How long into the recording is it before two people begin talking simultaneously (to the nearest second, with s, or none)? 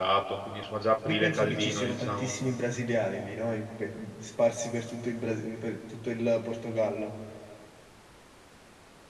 1 s